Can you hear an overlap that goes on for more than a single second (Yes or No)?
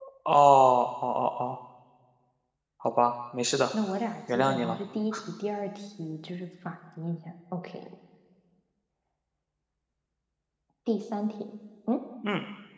No